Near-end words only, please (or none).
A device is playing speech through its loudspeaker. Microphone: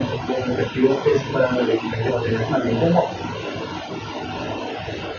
none